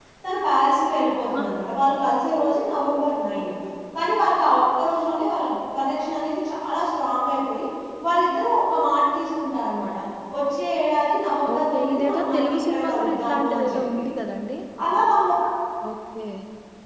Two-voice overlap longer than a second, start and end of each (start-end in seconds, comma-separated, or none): 11.5-13.8